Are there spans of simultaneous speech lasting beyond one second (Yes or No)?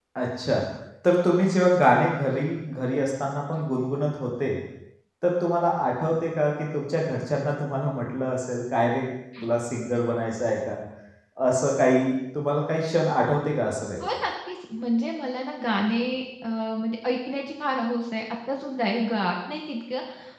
No